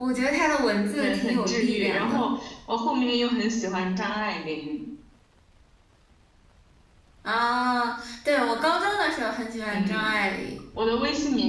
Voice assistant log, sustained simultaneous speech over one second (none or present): present